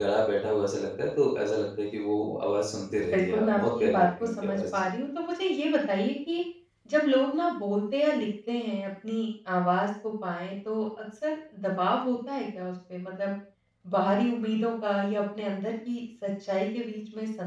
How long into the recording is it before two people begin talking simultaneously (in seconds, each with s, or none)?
3.1 s